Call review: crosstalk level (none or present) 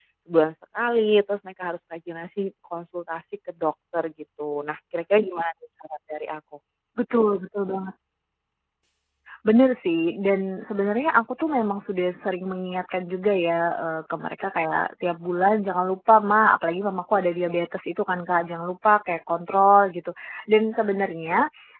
none